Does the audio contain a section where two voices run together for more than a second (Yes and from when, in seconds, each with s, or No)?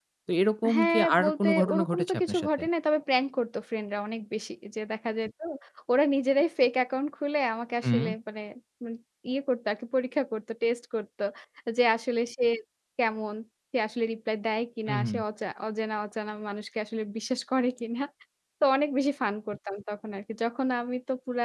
Yes, from 0.7 s